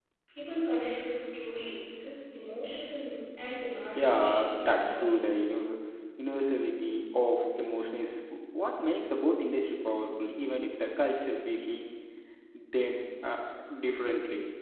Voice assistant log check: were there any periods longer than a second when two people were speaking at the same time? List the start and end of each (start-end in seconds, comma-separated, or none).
4.0-5.3